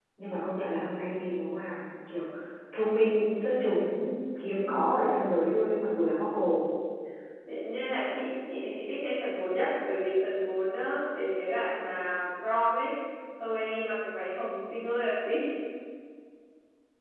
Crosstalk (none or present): none